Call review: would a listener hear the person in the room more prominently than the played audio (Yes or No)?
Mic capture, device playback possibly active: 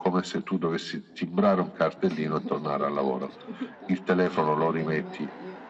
No